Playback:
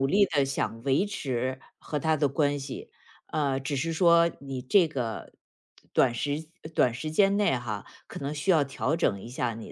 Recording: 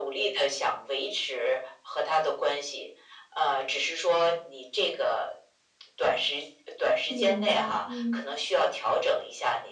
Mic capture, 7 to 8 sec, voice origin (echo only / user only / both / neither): both